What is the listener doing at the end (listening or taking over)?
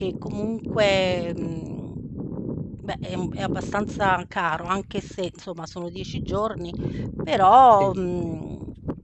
listening